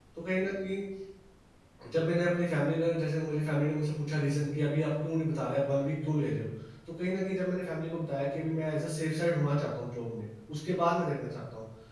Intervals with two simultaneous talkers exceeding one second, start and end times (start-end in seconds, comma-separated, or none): none